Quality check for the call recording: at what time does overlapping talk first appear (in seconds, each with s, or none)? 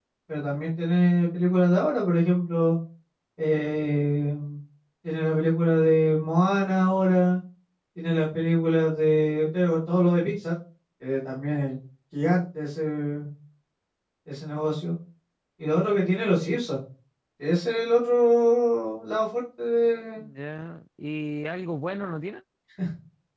none